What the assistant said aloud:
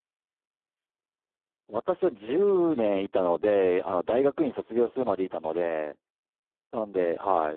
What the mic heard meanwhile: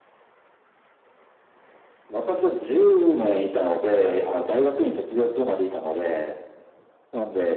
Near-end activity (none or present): none